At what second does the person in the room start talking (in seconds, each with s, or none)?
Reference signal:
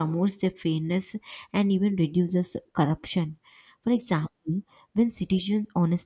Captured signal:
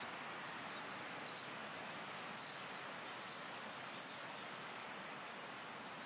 none